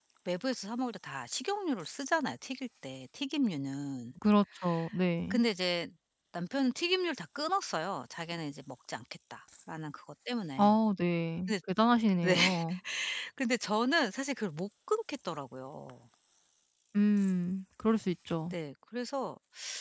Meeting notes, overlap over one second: none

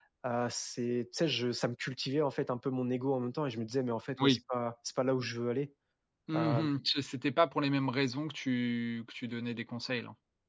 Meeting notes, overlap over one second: none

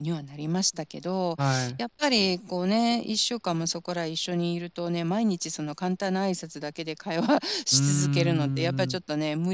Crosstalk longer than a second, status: present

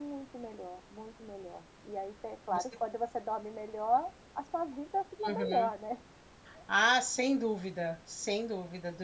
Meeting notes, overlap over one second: none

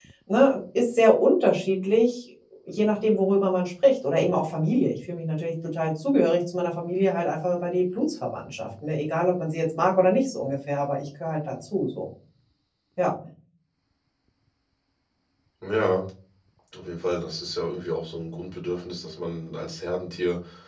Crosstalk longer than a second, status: none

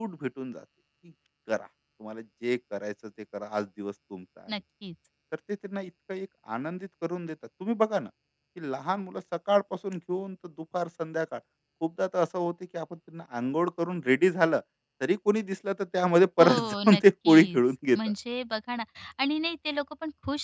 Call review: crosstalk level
present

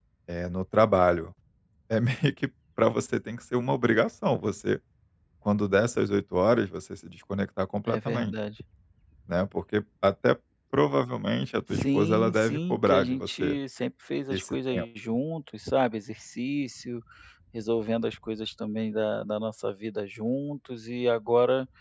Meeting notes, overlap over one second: present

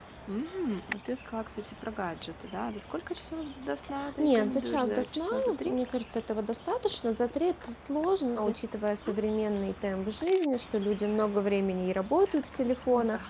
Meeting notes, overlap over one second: present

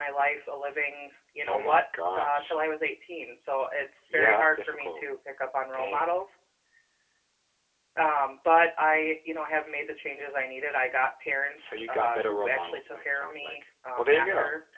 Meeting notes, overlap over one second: present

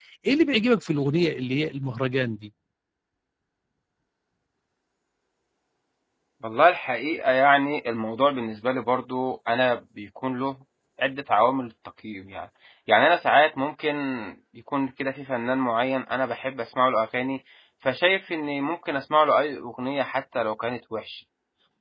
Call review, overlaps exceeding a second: none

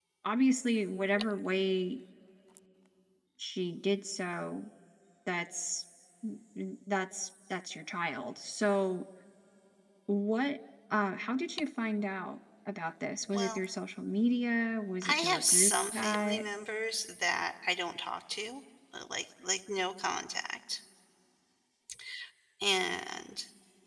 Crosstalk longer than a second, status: present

